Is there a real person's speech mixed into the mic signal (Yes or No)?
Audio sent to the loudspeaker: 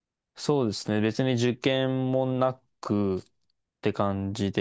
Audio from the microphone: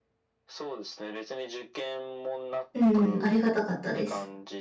Yes